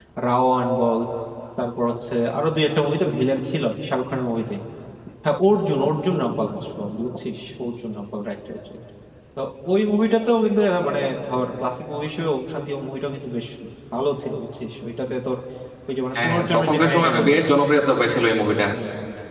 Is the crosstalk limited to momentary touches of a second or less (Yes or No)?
No